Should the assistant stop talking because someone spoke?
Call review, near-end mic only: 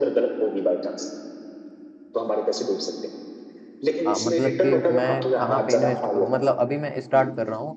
Yes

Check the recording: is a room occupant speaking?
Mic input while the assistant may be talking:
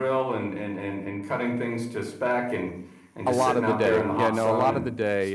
Yes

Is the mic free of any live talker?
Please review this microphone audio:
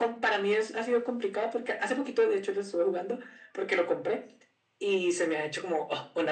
Yes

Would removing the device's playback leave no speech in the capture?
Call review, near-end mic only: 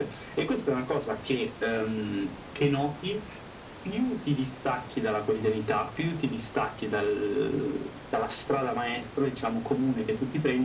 Yes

